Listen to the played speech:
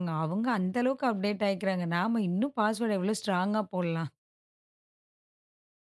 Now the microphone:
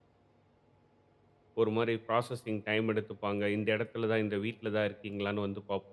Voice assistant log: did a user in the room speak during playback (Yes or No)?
Yes